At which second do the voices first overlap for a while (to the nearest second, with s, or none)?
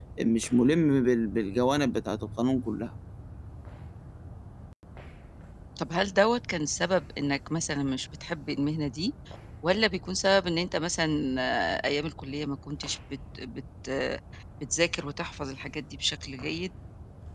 none